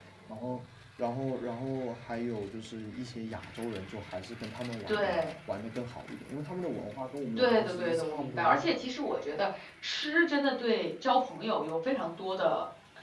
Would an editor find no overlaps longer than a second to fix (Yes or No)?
No